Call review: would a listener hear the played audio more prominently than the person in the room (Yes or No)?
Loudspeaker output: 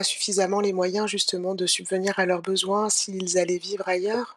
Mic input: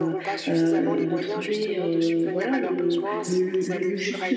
No